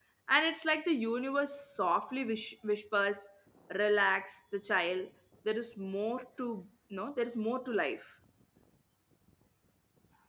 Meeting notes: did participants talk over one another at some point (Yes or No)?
No